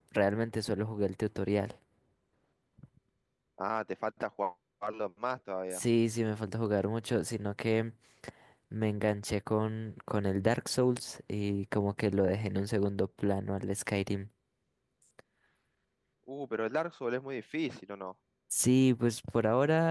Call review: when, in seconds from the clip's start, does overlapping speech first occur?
none

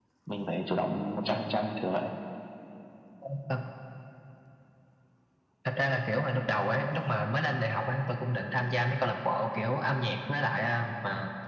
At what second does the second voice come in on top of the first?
none

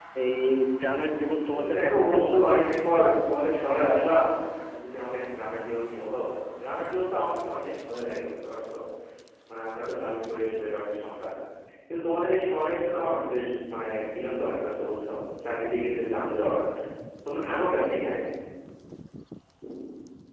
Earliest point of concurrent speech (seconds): 1.5 s

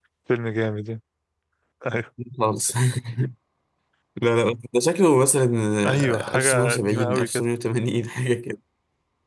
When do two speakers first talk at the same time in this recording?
5.8 s

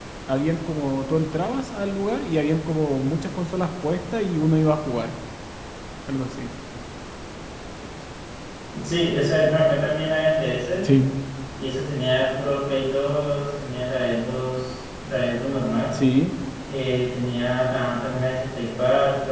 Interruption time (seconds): none

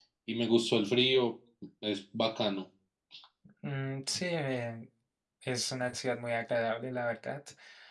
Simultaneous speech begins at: none

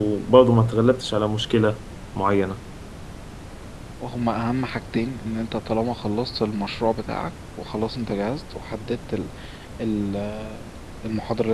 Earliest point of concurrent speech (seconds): none

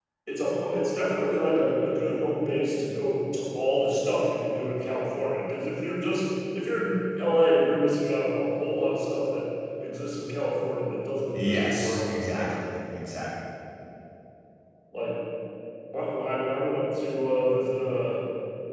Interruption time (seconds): 11.3 s

